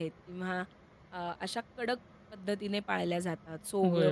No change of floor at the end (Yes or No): No